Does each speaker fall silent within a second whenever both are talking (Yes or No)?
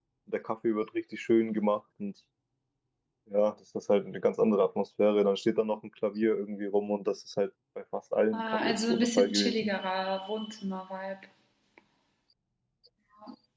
No